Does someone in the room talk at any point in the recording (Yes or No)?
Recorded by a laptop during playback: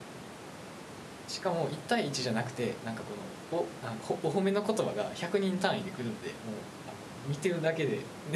Yes